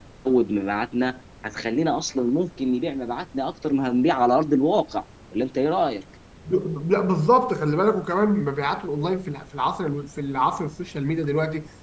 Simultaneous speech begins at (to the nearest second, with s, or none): none